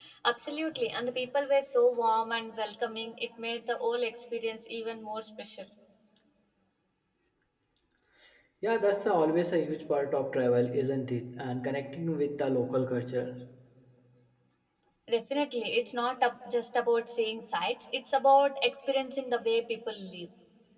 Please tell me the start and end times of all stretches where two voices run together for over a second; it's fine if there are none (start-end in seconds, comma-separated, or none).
none